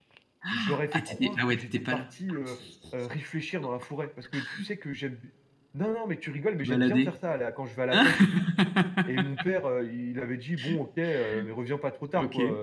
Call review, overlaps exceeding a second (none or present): present